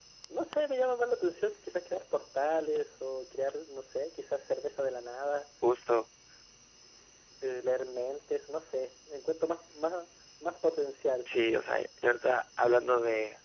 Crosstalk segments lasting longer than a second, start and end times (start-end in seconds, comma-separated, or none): none